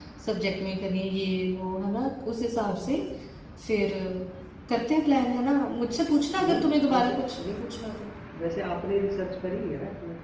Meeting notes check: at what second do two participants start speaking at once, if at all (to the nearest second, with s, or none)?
6 s